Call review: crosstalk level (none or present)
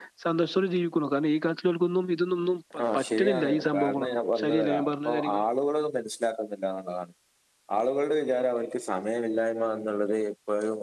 present